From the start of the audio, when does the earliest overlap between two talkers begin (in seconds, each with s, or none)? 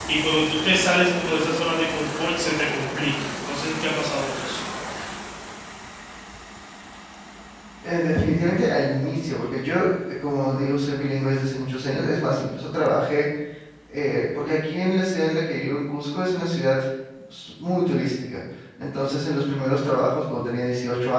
none